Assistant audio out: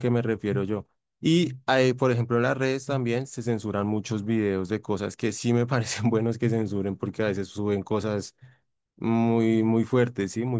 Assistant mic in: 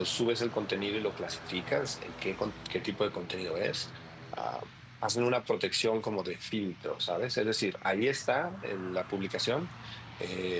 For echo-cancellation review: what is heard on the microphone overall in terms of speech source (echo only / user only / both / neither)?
user only